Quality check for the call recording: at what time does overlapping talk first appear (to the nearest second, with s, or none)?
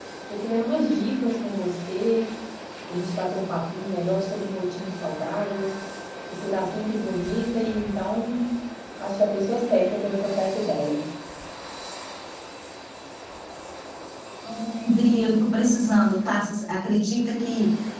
none